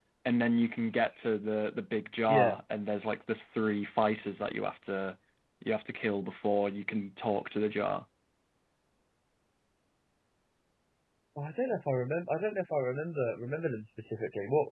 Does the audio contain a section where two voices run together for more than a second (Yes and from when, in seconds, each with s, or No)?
No